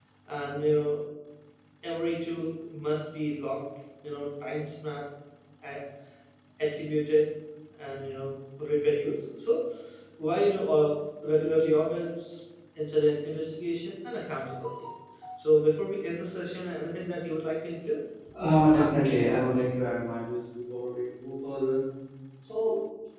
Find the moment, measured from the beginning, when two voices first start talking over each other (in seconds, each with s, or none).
none